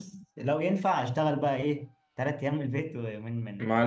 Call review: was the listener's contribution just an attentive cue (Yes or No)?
No